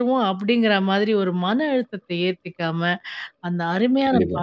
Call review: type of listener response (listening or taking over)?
listening